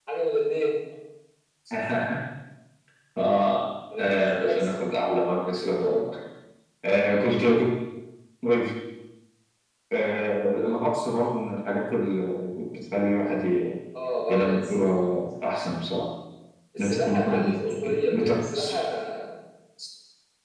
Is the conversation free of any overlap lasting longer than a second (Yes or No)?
No